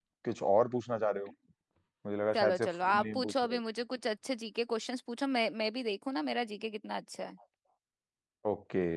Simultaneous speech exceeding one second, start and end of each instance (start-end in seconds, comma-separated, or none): 2.3-3.6